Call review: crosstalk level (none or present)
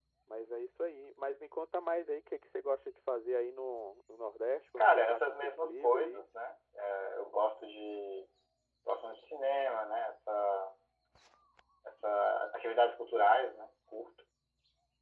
present